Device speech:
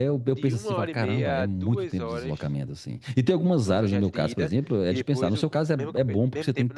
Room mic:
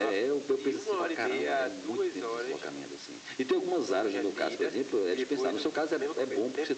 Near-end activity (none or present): none